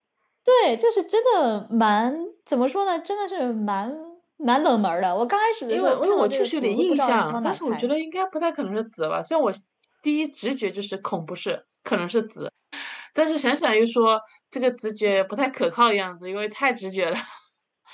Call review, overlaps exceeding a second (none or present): present